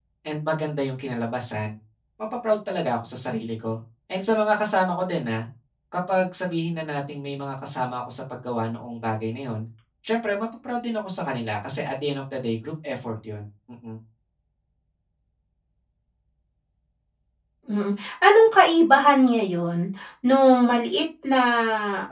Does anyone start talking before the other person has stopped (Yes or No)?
No